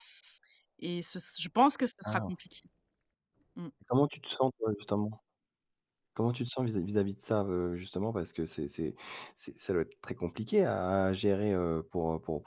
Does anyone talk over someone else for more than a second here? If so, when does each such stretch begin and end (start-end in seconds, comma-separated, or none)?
none